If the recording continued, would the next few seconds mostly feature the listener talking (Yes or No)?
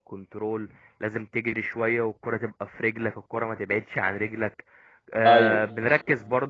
No